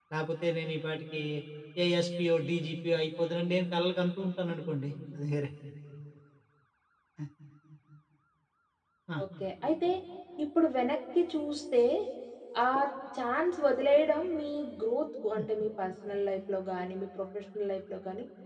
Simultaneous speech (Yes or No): No